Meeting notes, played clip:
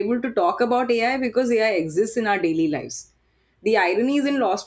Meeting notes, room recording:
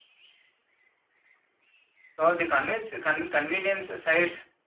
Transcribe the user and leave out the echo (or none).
though, the convince, con- convenience sides